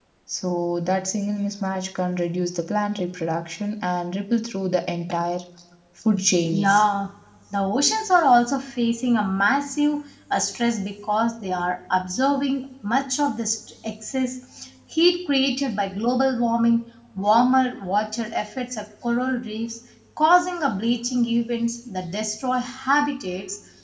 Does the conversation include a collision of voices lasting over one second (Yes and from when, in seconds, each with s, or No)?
No